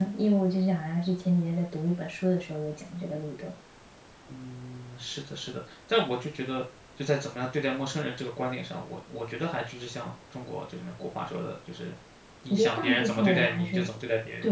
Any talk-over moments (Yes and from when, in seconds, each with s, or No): Yes, from 12.5 s